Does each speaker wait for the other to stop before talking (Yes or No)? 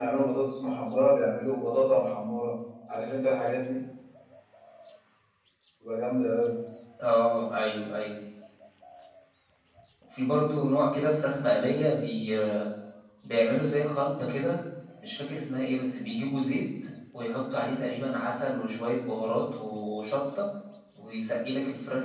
Yes